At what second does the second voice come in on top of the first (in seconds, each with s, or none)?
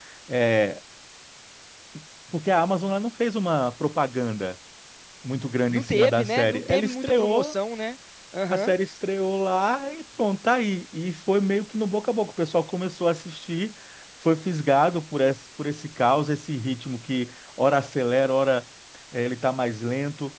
5.7 s